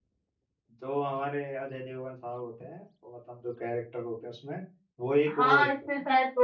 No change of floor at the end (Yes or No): No